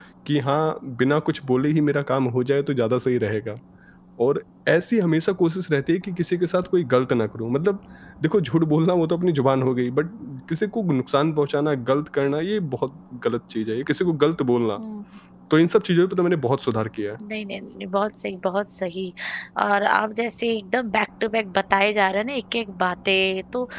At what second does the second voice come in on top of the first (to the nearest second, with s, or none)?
none